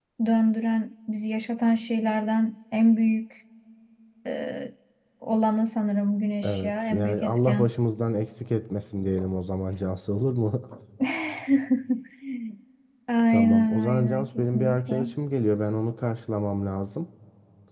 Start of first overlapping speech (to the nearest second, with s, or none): 6 s